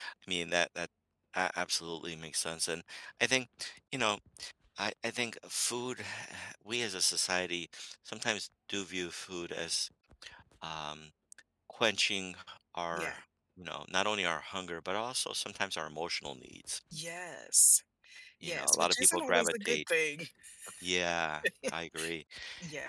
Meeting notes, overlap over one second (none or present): present